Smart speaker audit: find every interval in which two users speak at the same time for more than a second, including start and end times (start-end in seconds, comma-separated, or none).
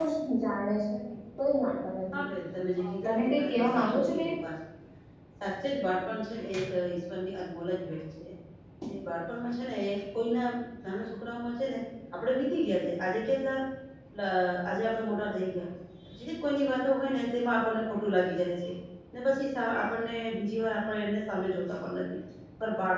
2.8-4.3